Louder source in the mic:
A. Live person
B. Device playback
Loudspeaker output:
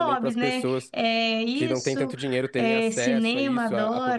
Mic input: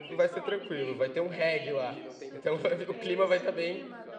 A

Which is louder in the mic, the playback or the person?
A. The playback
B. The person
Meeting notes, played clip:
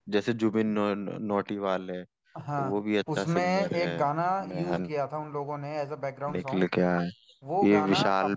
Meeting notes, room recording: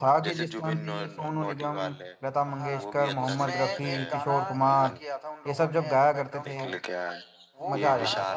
B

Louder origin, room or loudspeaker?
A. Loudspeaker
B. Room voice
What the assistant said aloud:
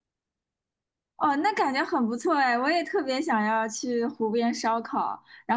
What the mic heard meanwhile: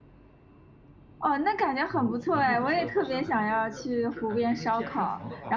A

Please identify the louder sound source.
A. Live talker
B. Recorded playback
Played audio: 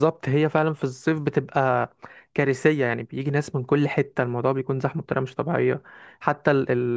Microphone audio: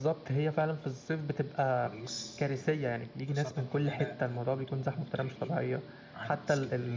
B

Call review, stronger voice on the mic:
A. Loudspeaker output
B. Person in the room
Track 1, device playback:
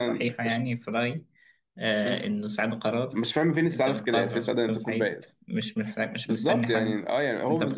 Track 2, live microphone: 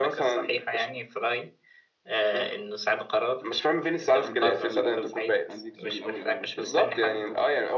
A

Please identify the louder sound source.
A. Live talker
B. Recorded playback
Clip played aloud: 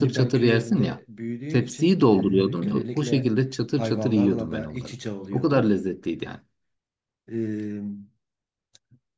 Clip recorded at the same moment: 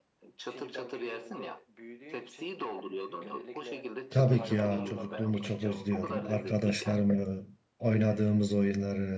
A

